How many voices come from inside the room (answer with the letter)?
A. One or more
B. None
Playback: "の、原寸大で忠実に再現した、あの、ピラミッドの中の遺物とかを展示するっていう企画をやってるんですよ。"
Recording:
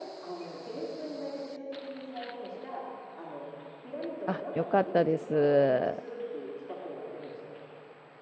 A